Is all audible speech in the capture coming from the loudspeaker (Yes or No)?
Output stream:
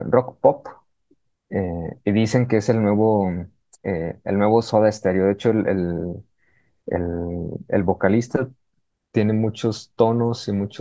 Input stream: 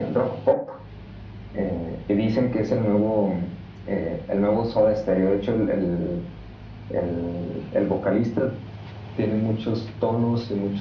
Yes